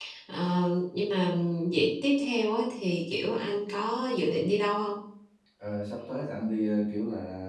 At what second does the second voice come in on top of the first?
none

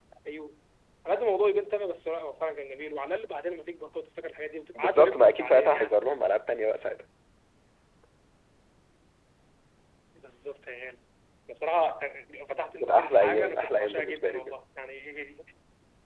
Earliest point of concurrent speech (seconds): 4.7 s

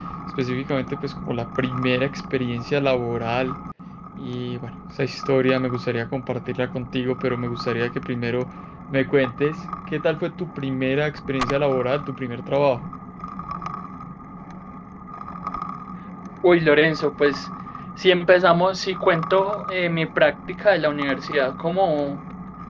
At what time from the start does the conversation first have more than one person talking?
none

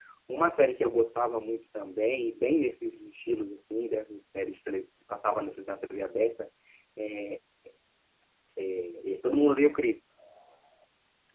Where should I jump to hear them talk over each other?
none

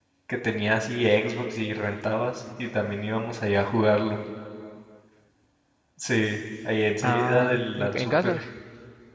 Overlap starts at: 7.0 s

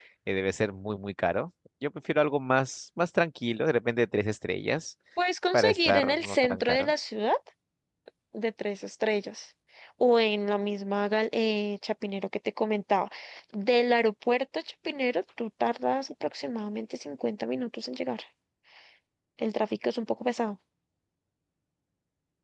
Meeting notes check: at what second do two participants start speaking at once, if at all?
5.5 s

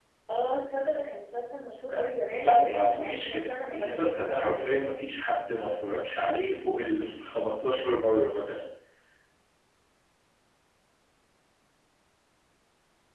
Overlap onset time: 2.4 s

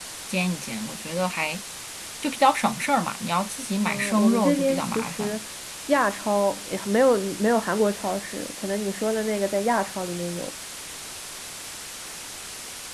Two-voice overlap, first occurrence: 3.9 s

